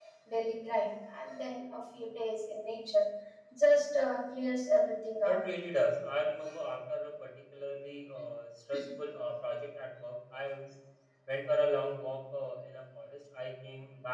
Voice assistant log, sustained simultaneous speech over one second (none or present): none